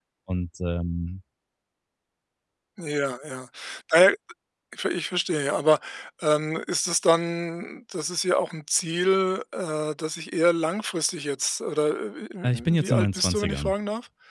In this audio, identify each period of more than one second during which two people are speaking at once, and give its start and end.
12.4-13.7

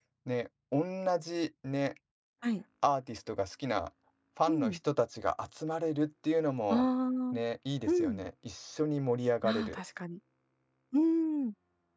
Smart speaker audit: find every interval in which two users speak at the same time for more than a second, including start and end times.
none

